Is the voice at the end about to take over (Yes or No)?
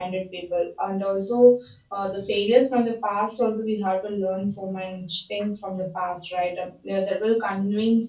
No